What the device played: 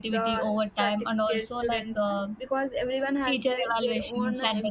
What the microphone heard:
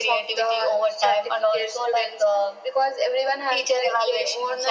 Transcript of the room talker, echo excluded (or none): none